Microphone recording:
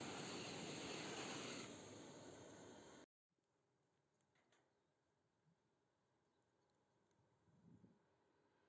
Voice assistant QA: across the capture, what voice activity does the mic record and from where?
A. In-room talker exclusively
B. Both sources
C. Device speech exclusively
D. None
D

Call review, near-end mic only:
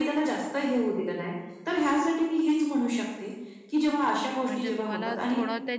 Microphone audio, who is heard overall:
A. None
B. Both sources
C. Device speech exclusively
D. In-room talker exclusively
B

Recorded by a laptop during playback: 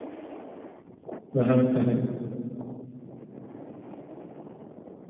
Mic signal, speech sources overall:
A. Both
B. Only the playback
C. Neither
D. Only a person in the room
D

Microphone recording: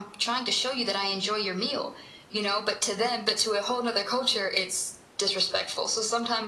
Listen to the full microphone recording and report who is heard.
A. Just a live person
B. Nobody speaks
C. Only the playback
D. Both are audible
C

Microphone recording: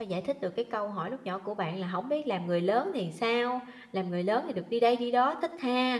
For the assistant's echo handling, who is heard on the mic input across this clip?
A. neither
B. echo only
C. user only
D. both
C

